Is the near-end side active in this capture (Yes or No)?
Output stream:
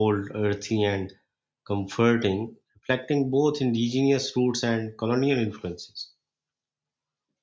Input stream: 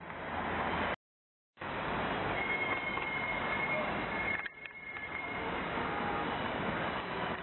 No